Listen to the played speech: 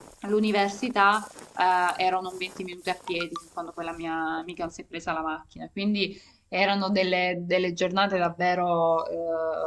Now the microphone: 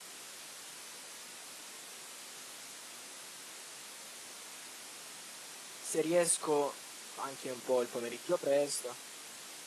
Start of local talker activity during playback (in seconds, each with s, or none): 5.8 s